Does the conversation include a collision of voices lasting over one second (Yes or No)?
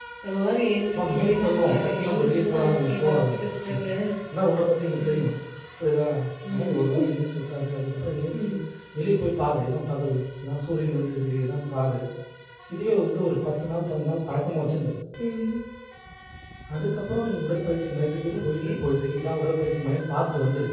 Yes